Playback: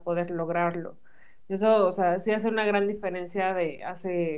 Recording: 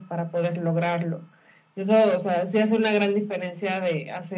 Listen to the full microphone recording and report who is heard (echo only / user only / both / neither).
echo only